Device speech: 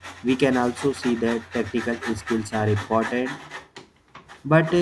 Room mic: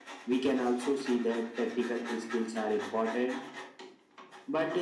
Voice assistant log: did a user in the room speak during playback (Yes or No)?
No